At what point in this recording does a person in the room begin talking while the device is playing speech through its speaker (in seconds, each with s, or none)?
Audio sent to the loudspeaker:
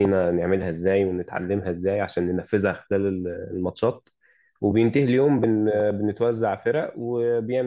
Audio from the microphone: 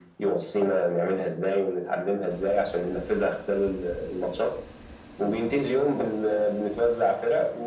none